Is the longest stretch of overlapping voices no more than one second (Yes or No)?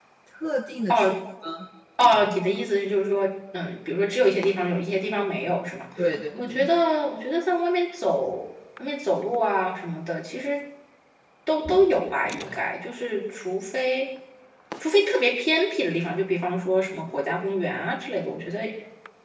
Yes